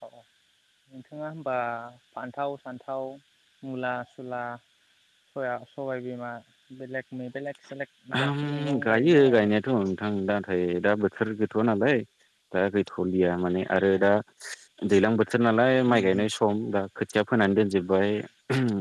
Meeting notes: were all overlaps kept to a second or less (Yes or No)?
No